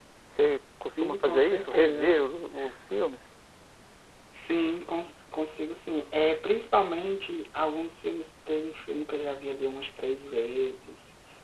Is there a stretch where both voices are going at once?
Yes, from 0.9 s

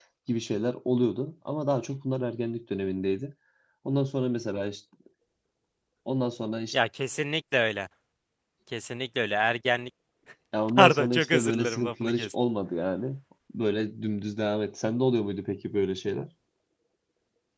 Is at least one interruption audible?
Yes, from 10.8 s

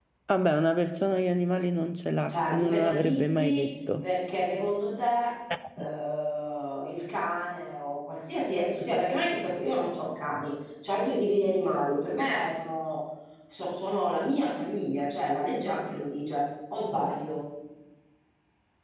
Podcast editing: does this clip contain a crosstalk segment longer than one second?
Yes, from 2.3 s

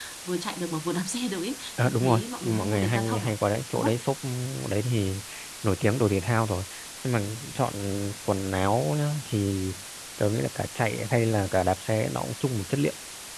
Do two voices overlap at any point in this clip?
Yes, from 1.8 s

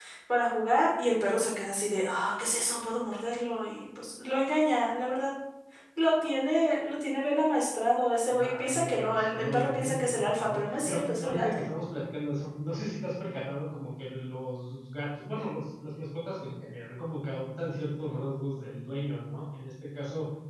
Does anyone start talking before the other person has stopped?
Yes, from 8.3 s

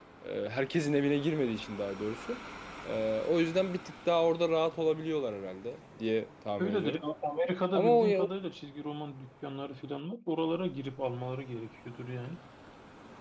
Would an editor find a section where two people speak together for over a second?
No

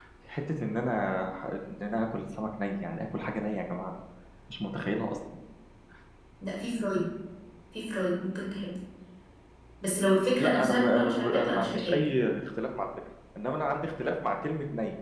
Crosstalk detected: Yes, from 10.4 s

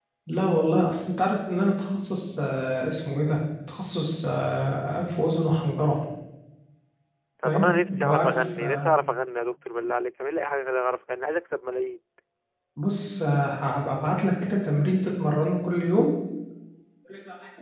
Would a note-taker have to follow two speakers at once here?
Yes, from 7.4 s

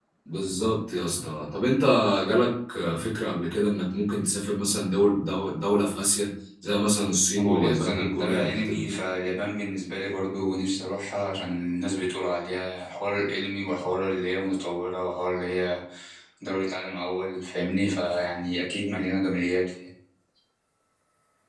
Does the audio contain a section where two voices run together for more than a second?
Yes, from 7.3 s

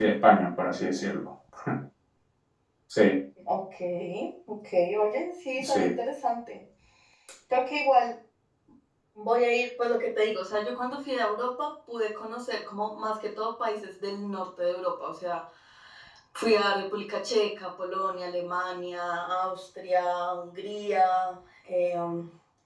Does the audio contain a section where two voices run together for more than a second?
No

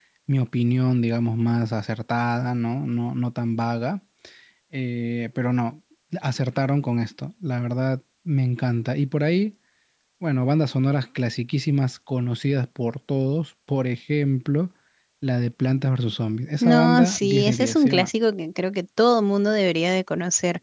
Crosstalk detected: Yes, from 16.6 s

